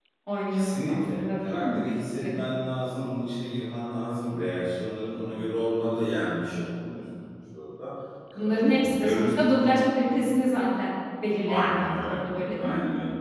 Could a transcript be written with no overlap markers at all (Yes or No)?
No